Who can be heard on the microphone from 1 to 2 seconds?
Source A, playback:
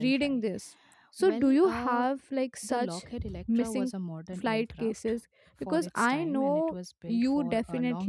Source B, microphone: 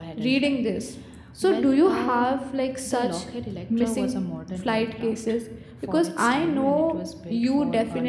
echo only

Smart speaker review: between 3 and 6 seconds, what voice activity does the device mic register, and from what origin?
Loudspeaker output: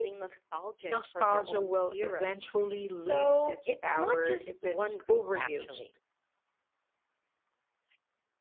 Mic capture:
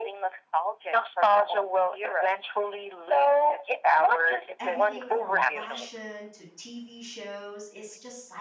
both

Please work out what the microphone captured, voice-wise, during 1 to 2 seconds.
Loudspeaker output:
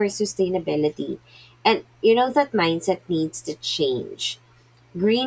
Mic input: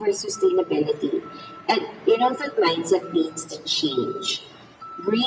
echo only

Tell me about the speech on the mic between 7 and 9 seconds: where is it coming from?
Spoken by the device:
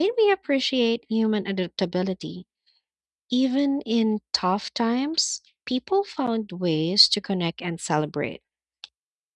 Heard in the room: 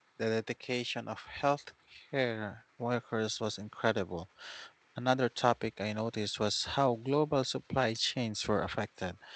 user only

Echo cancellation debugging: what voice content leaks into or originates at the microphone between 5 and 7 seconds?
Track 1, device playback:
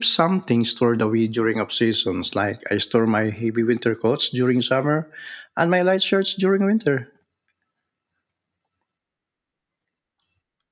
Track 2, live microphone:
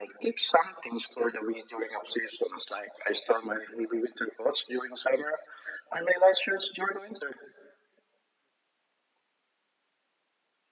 echo only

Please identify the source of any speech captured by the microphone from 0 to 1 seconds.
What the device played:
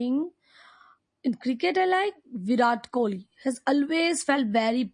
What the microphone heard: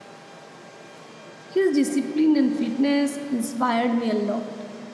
neither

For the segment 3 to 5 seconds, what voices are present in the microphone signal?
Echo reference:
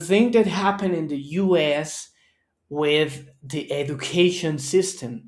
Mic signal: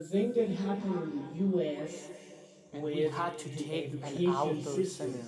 both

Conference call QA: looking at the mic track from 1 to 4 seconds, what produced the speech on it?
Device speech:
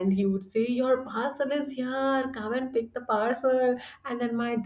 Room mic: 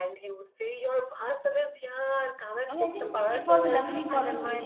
both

